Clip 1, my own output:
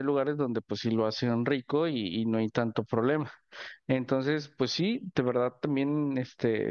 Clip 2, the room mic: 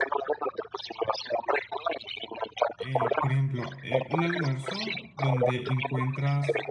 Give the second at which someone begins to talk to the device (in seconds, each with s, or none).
2.8 s